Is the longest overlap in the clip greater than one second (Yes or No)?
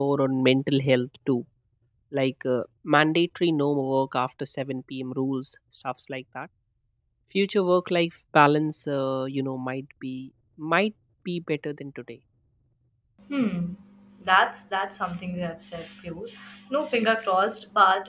No